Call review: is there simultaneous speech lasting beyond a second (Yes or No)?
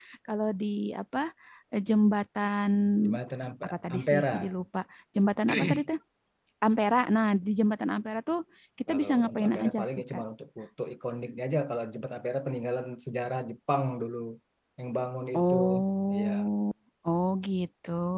Yes